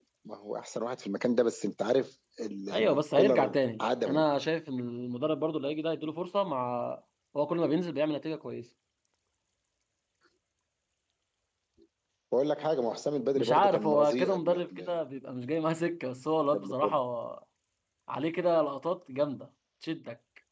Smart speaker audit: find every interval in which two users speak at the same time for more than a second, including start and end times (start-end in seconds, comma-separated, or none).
2.7-4.2, 13.4-14.9